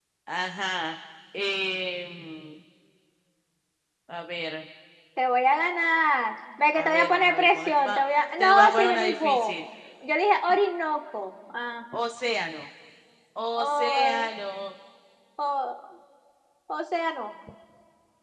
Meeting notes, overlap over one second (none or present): present